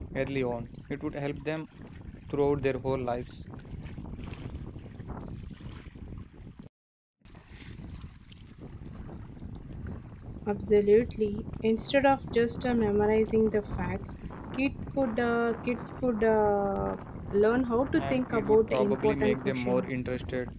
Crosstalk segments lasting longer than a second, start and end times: 17.9-19.9

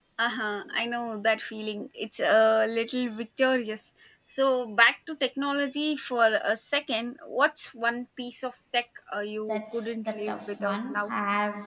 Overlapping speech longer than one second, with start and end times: 9.5-11.1

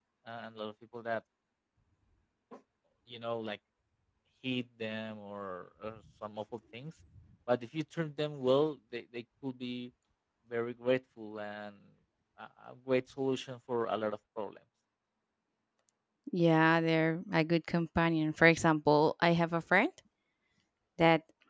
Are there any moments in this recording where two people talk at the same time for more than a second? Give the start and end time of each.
none

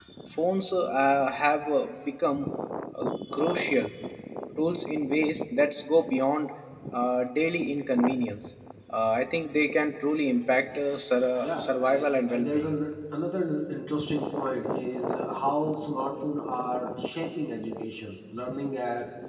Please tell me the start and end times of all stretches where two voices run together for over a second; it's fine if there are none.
11.4-12.8

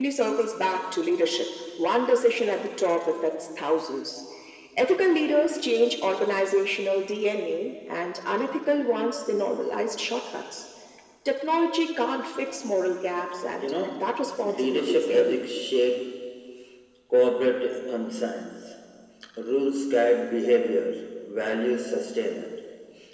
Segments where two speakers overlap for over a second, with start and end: 13.6-15.4

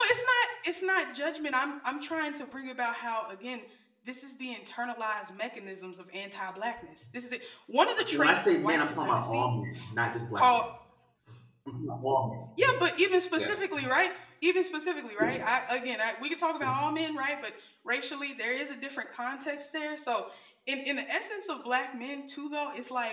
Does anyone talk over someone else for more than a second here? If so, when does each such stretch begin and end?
8.1-9.5

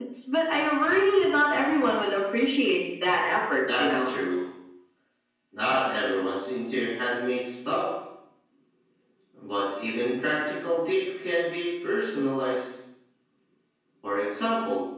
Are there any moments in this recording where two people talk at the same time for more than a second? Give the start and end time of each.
none

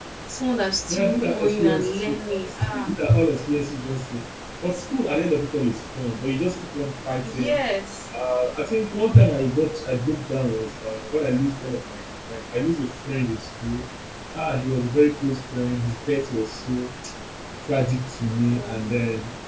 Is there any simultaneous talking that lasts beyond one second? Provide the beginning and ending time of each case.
0.9-2.9

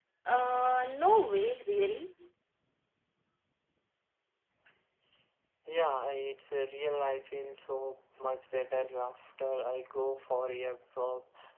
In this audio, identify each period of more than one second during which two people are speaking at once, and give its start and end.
none

